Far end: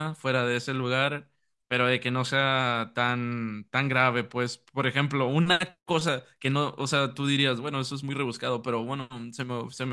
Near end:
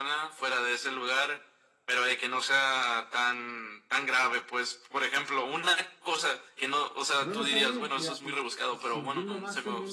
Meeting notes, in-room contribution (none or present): present